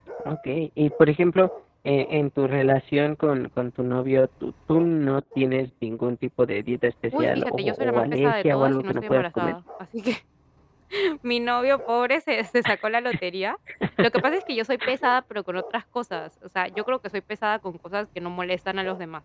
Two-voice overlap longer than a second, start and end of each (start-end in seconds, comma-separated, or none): 7.1-9.6